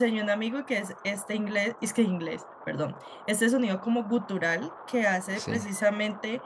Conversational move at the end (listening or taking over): listening